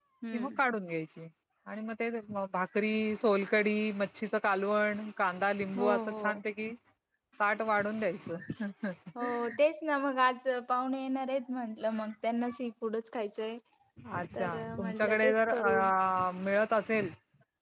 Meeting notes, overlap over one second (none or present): present